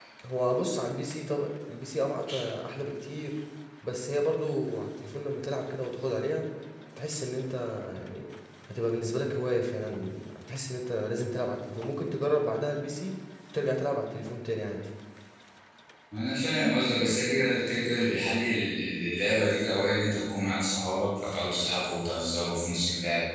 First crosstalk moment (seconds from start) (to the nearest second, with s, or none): none